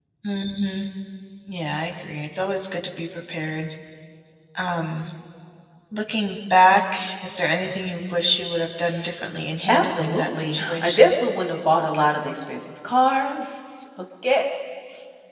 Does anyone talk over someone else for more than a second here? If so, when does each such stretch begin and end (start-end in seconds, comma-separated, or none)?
9.7-11.2